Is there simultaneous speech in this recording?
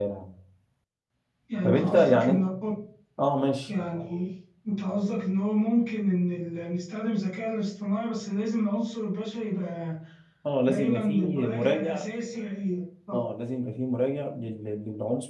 Yes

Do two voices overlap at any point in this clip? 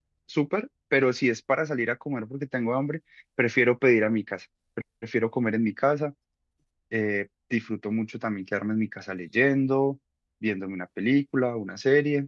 No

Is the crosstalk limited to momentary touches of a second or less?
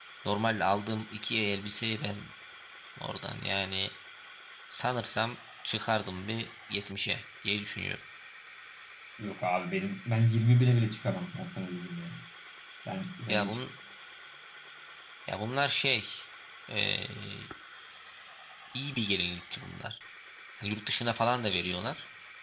Yes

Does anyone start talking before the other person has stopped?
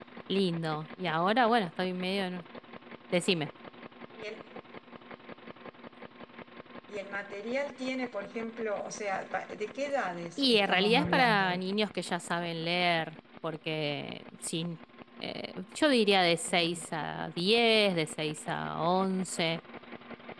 Yes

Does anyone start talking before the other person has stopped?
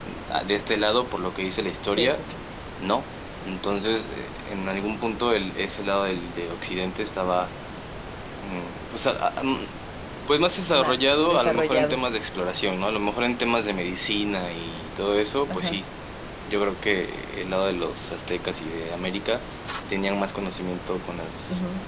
Yes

